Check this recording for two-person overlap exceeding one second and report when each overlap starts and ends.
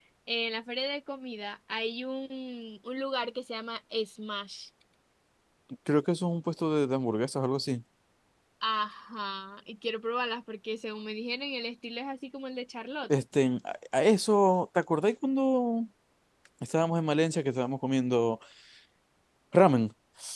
none

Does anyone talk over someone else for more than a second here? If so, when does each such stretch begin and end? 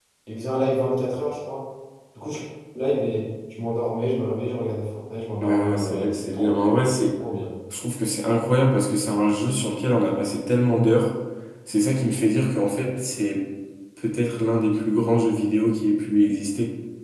5.4-6.7

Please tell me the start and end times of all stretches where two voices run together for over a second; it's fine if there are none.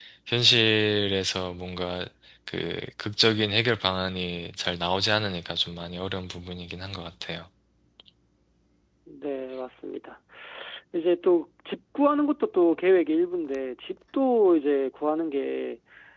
none

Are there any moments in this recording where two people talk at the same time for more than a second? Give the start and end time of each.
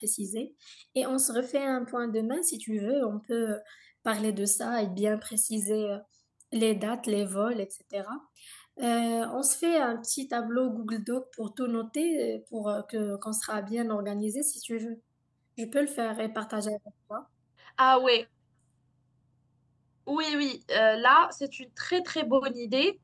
none

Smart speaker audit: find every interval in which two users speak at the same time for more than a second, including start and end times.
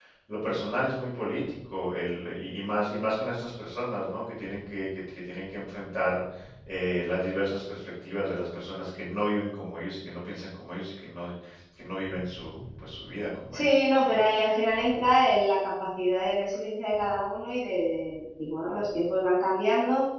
none

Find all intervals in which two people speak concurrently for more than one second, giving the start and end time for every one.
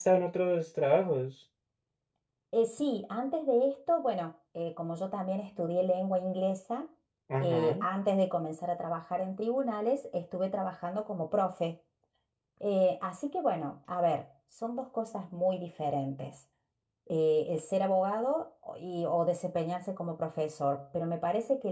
none

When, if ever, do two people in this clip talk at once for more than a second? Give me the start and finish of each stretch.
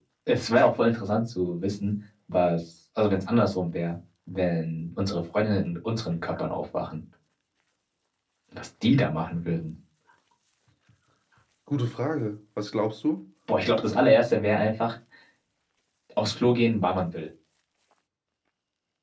none

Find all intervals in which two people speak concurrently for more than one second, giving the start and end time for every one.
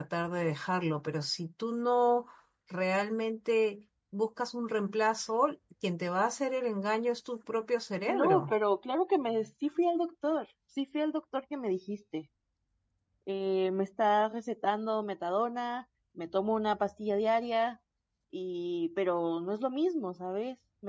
none

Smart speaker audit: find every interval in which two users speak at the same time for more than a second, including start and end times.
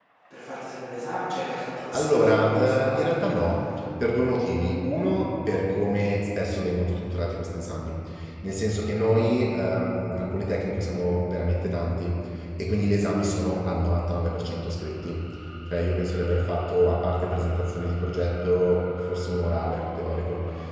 1.9-3.1

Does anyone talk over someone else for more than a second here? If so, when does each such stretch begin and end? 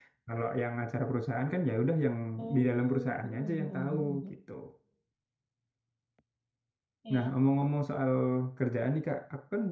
2.5-4.2

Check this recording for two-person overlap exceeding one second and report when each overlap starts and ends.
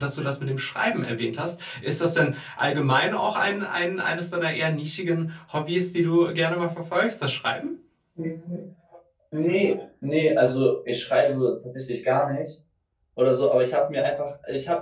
none

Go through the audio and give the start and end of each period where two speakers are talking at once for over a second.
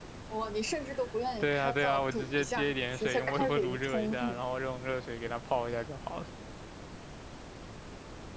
1.4-4.4

